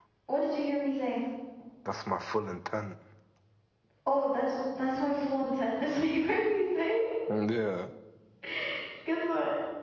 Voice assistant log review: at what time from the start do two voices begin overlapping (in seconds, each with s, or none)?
none